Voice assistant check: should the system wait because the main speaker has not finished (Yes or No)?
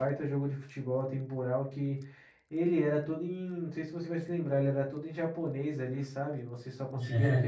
Yes